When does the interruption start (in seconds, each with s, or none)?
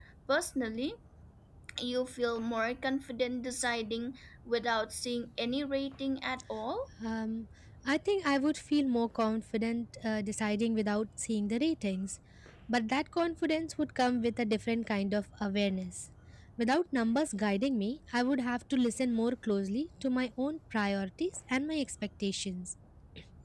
none